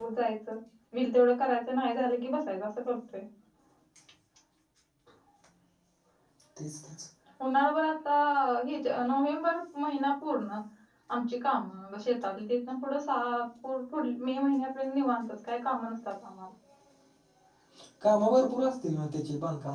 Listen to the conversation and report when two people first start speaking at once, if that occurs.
none

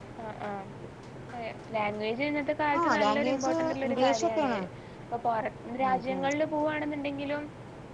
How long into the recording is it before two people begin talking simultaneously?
2.8 s

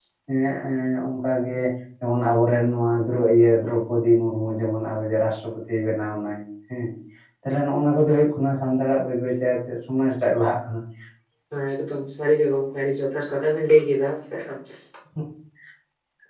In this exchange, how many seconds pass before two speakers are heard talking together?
none

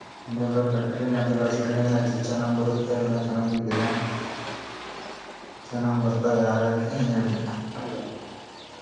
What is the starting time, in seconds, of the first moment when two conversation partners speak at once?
0.9 s

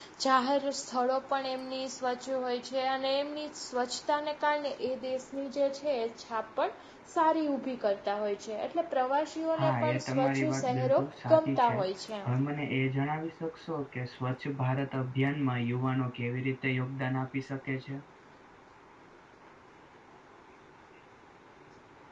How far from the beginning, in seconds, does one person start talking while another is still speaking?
9.5 s

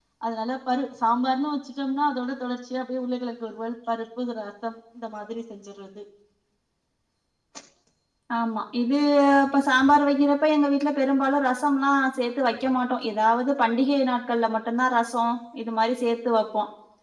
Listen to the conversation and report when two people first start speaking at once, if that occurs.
none

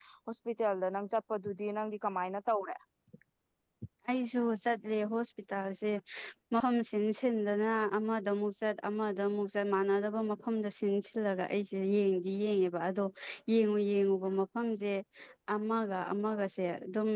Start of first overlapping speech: none

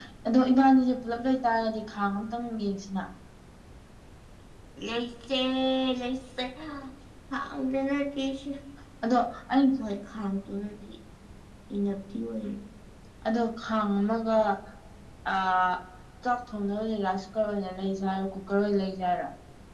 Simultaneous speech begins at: none

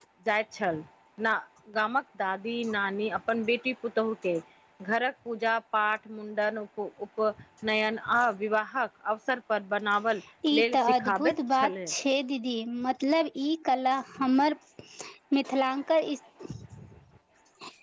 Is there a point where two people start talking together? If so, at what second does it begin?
10.6 s

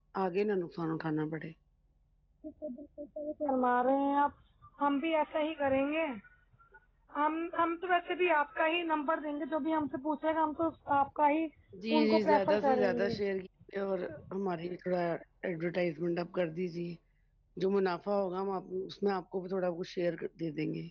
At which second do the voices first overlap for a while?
12.0 s

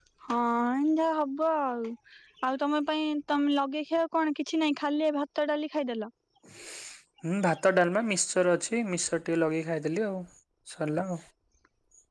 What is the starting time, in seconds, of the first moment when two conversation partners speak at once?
none

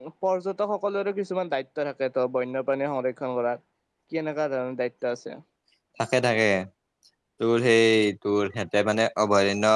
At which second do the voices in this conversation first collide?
none

